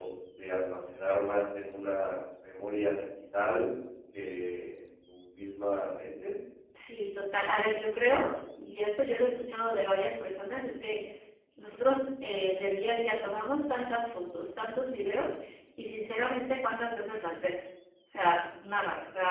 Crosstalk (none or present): none